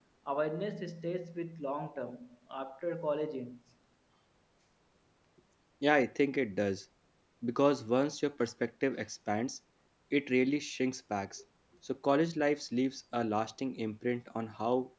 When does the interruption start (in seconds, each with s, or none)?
none